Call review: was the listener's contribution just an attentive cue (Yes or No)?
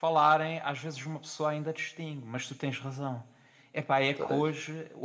Yes